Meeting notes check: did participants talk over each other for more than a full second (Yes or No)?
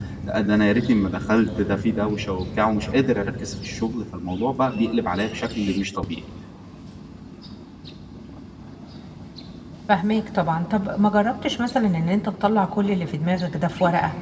No